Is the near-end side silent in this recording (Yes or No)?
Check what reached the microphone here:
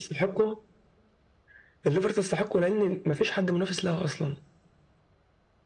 Yes